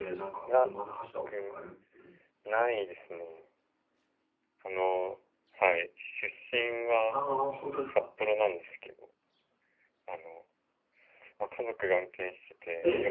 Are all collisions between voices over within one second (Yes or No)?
Yes